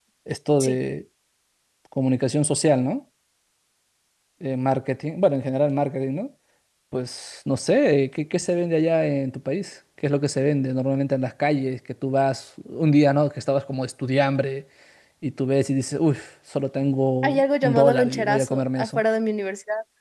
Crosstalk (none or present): present